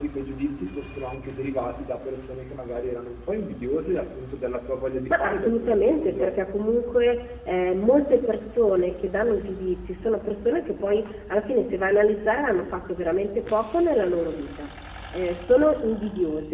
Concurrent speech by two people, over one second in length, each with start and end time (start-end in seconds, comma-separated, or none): 5.1-6.4